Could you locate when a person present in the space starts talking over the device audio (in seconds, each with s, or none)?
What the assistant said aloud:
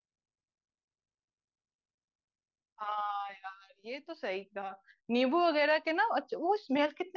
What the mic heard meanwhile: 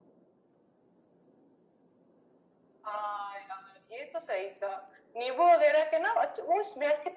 none